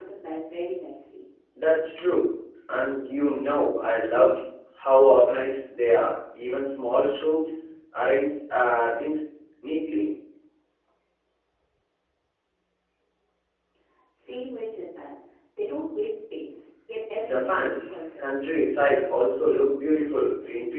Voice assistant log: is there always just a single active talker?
No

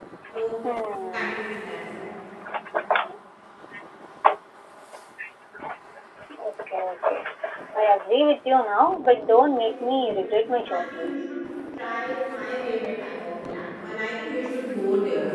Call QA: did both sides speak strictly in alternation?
No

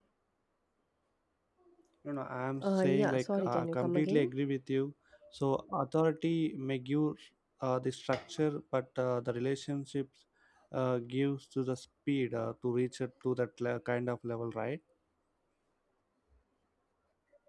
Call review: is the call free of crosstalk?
No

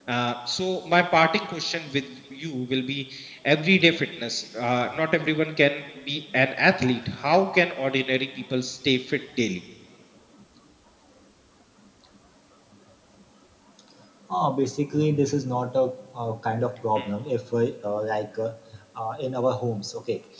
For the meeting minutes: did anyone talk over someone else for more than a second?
No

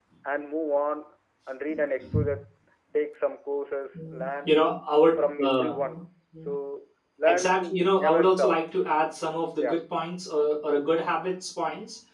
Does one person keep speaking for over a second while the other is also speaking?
Yes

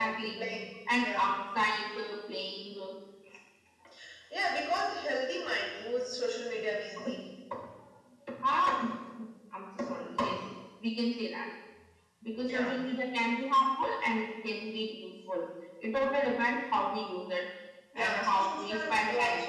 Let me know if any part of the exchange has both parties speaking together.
Yes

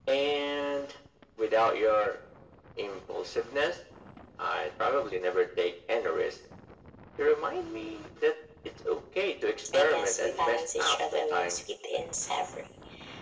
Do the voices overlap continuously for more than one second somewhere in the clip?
Yes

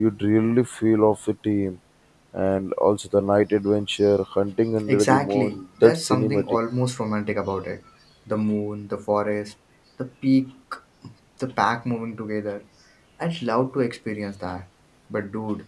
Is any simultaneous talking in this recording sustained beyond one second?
Yes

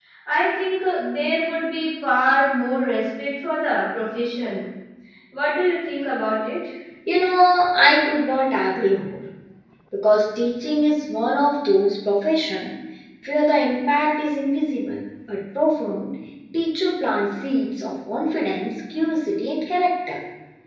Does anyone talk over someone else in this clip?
No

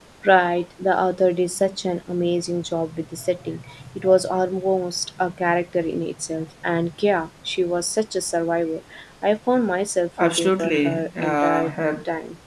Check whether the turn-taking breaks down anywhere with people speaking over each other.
Yes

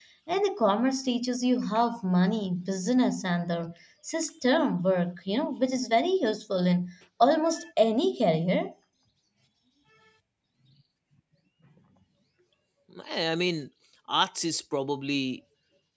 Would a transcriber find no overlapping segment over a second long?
Yes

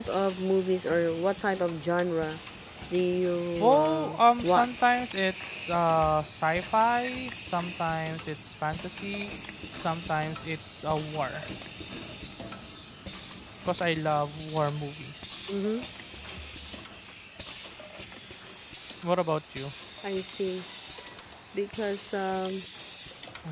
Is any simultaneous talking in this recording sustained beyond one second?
Yes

